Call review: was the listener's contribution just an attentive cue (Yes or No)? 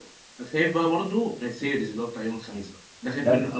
No